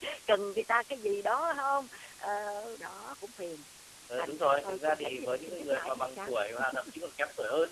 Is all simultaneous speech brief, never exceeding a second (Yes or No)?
No